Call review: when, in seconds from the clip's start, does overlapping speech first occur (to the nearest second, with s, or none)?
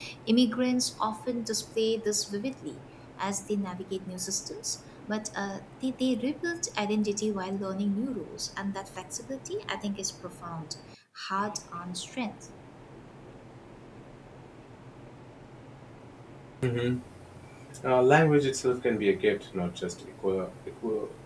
none